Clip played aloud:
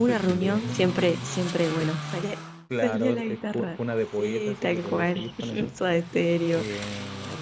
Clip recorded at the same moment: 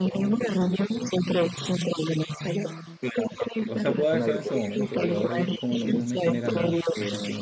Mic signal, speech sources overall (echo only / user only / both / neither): both